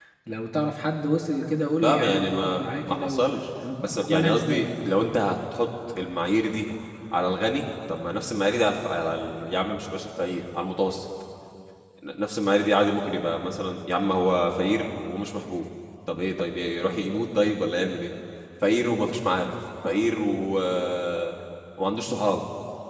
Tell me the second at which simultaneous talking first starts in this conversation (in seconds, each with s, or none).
1.8 s